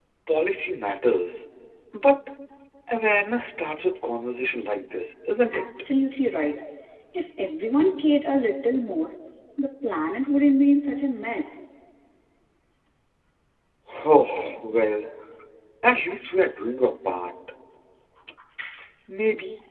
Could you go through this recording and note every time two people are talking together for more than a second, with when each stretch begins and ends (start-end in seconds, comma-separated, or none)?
none